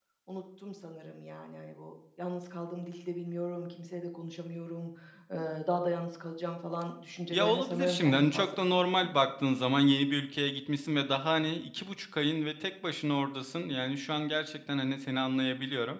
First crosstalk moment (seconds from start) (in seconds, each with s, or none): 7.3 s